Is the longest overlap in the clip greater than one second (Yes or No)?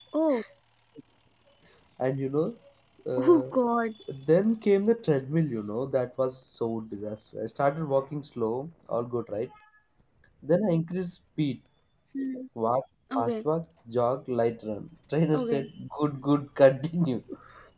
No